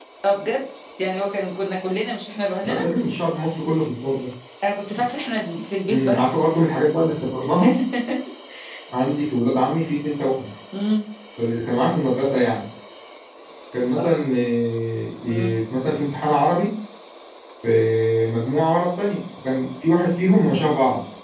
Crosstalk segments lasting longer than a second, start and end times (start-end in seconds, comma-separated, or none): none